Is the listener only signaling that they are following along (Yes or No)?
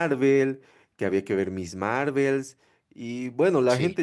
Yes